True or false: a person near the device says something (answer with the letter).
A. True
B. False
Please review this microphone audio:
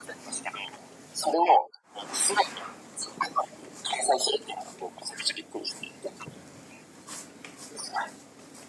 B